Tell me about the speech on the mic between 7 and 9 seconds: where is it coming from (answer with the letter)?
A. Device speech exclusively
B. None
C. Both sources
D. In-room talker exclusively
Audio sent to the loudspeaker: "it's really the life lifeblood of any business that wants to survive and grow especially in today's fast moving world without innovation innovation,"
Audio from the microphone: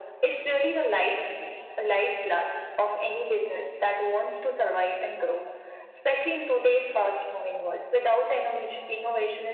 A